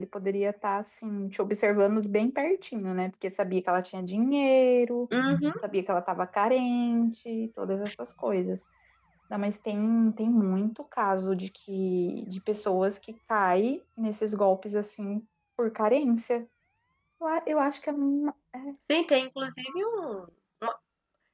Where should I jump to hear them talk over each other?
none

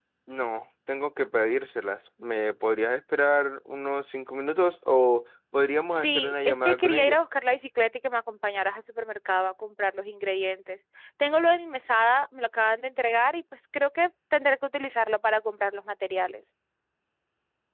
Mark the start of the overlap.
6.0 s

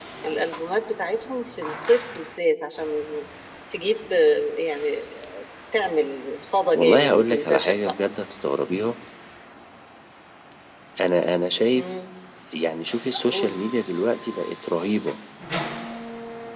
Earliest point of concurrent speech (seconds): 6.7 s

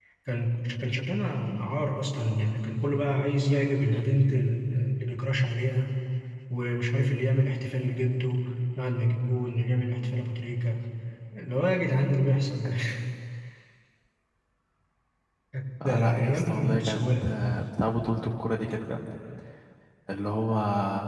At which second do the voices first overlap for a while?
15.8 s

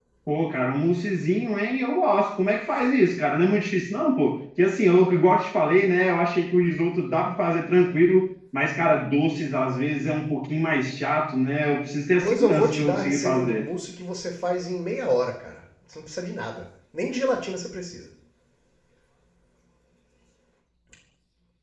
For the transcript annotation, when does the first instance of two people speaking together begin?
12.2 s

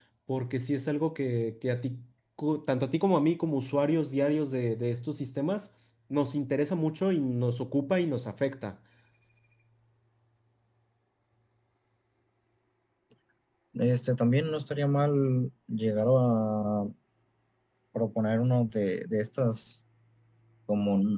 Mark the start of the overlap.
none

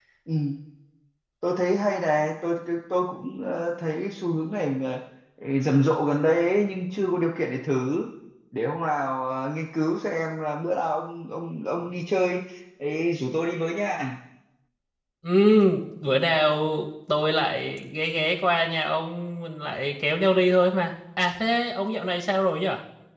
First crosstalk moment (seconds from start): none

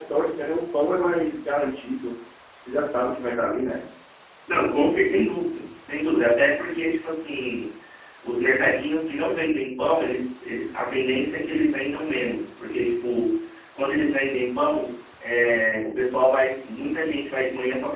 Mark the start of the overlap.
none

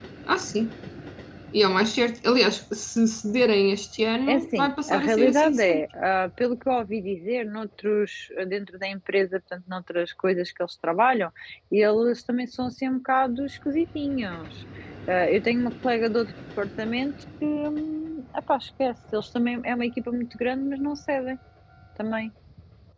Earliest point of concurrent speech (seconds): 4.3 s

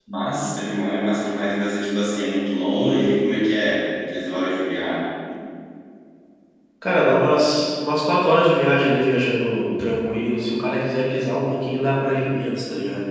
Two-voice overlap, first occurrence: none

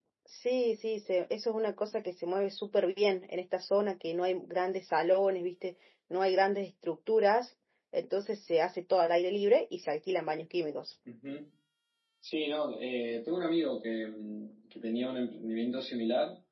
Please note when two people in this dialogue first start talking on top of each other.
none

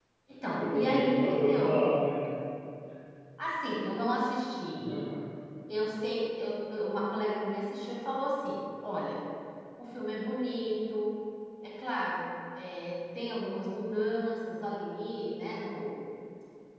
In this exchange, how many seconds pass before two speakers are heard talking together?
0.6 s

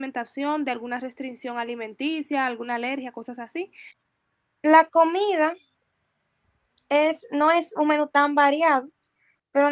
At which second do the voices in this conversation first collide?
none

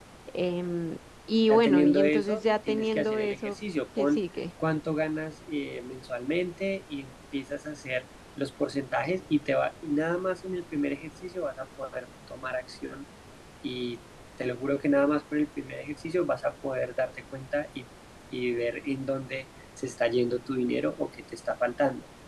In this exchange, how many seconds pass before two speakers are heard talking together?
1.5 s

